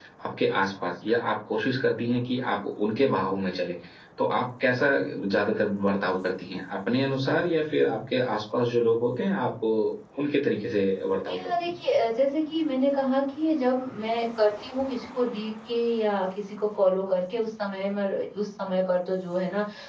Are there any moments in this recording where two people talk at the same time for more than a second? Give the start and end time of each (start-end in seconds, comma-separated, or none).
none